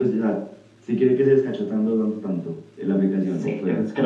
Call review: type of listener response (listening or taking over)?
taking over